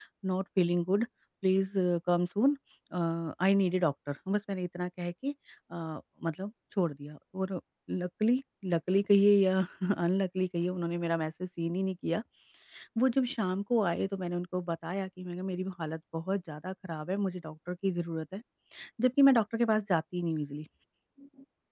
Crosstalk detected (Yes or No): No